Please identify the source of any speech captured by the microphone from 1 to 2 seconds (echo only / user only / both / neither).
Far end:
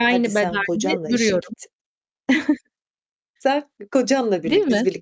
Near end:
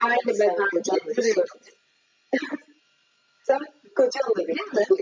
echo only